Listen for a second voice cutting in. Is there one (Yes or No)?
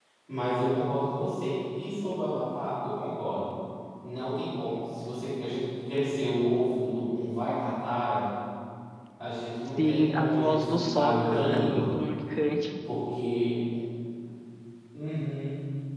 Yes